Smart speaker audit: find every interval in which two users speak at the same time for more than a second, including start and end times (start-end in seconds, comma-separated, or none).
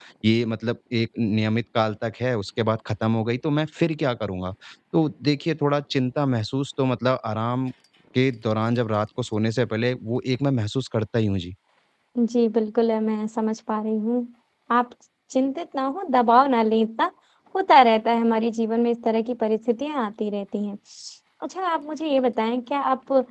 none